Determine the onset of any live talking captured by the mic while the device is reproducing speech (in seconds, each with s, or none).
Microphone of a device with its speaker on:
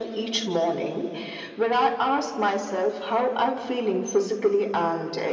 none